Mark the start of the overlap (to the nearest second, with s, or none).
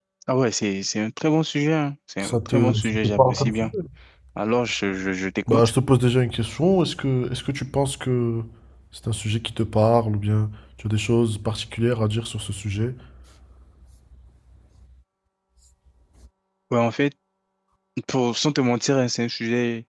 2 s